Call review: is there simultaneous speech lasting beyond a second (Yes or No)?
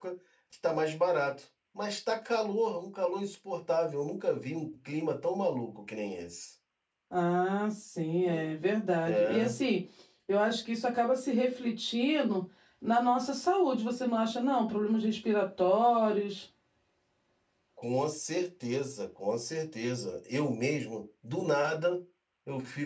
No